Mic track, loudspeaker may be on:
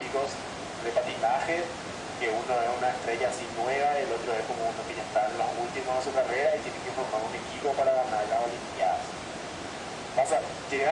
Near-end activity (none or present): none